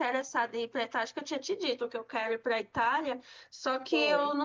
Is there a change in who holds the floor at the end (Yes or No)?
No